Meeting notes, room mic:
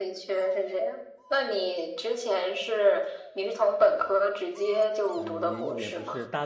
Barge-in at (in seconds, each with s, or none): 5.1 s